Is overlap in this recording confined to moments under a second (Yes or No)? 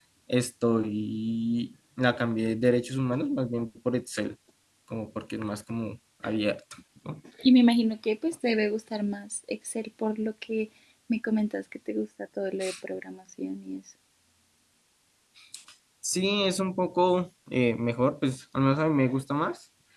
Yes